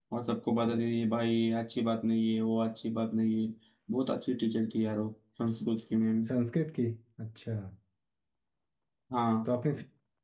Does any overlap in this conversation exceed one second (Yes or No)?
No